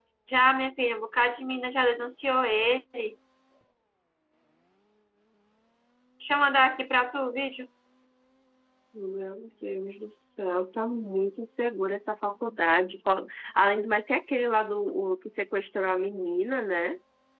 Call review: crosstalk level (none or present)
none